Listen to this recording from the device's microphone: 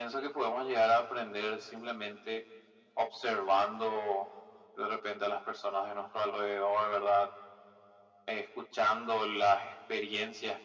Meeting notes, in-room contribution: none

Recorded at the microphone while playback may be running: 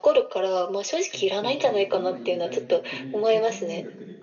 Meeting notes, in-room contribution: present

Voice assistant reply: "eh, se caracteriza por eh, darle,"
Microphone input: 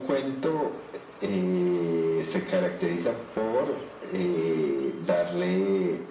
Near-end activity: none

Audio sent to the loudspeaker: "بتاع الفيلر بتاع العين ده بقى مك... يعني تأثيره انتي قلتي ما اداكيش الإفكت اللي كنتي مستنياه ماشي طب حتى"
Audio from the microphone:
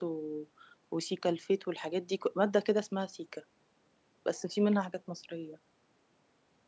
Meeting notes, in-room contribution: present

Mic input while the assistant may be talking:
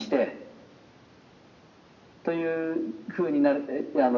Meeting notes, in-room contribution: none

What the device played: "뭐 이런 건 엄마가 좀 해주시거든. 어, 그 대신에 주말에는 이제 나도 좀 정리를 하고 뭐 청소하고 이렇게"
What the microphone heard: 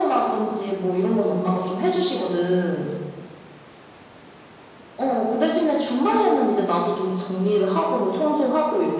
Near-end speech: none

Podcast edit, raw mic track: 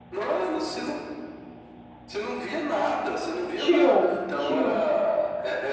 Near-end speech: present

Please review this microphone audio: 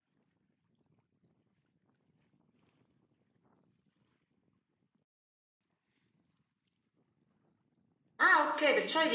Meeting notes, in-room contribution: present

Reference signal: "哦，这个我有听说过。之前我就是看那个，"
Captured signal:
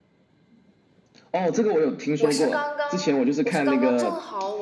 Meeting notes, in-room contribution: present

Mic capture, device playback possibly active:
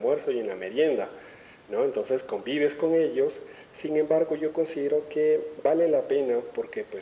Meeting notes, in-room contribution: none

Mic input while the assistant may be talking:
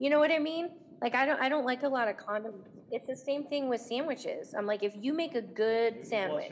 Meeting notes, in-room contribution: present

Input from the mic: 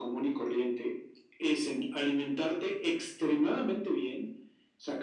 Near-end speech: none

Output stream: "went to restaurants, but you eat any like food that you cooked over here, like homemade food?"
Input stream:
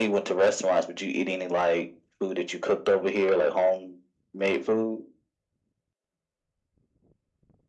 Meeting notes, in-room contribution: none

